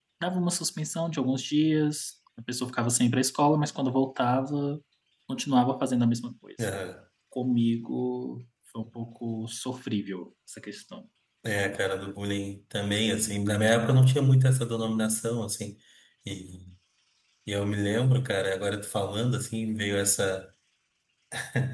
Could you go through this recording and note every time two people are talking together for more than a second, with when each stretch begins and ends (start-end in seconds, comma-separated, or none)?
none